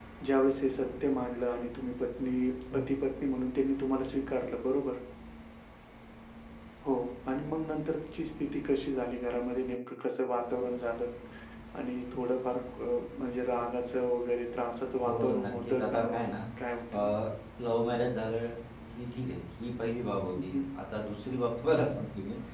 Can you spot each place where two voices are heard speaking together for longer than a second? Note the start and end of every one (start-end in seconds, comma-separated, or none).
15.0-16.4